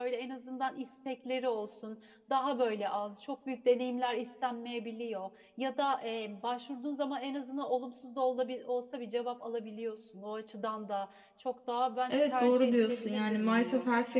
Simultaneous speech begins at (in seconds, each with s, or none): 12.1 s